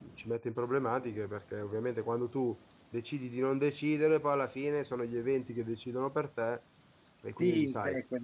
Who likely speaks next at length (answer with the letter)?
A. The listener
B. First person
A